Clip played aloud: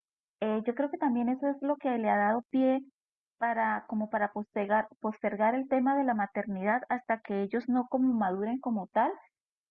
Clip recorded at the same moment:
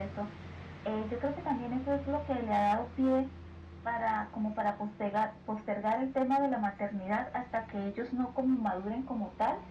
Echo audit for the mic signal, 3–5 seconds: echo only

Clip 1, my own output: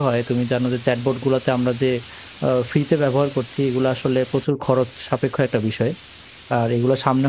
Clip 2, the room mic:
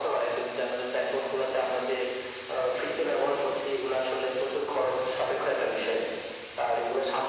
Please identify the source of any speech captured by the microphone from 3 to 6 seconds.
echo only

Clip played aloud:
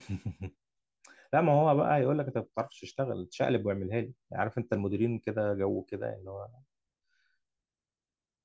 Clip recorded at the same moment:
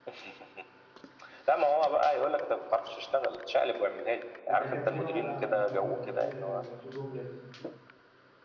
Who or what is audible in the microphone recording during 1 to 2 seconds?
echo only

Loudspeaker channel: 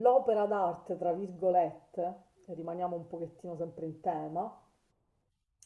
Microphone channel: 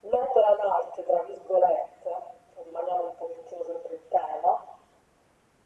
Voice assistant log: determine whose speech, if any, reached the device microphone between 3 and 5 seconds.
echo only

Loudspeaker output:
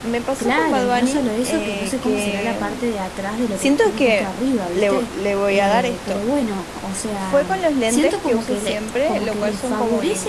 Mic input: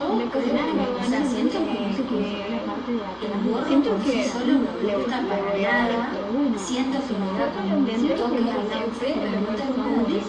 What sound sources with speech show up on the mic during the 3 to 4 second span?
both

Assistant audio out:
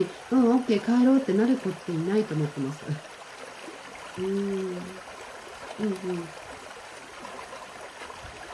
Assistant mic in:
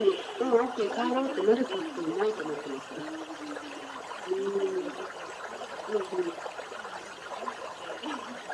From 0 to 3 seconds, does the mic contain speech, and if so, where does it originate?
both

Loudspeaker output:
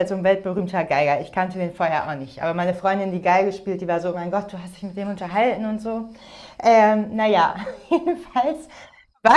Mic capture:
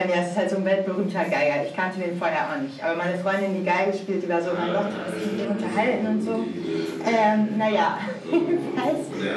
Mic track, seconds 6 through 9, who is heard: both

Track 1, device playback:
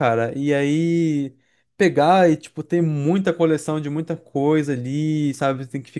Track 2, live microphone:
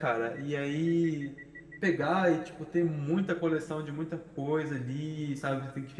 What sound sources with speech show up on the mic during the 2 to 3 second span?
echo only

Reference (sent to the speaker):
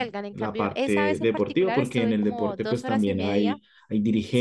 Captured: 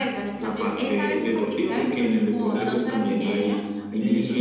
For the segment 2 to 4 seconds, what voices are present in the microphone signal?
both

